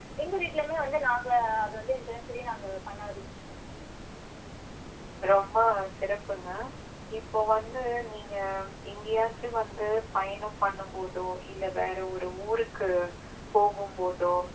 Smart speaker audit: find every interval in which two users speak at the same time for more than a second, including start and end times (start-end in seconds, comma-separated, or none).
none